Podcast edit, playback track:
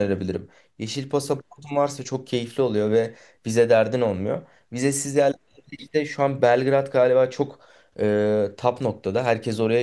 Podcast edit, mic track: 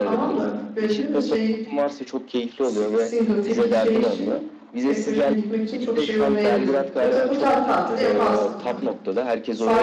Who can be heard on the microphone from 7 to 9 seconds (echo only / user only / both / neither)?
both